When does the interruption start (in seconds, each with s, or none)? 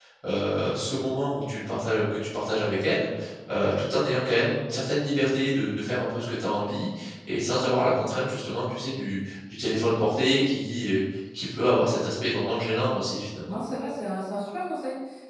none